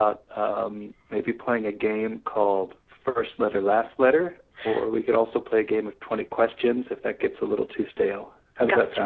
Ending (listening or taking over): taking over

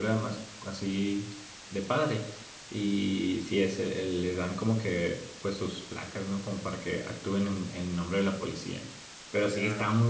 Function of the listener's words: listening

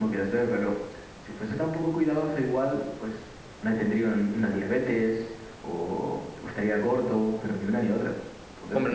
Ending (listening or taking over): taking over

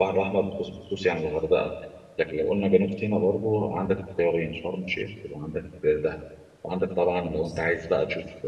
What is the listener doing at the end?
listening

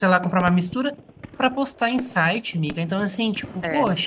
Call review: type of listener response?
listening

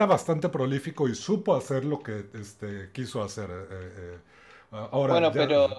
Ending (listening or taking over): taking over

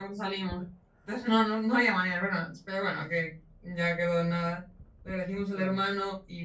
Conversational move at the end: listening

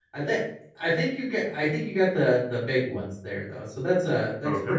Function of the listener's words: taking over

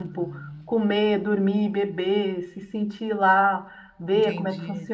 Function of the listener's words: taking over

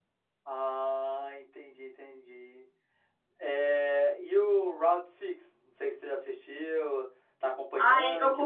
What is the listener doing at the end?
taking over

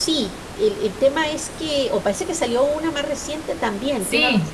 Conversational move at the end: taking over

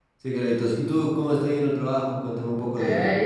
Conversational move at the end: taking over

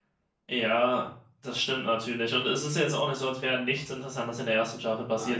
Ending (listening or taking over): listening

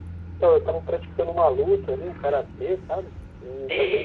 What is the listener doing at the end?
listening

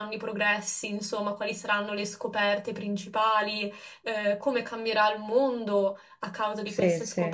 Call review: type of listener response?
listening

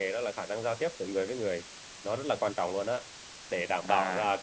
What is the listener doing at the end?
listening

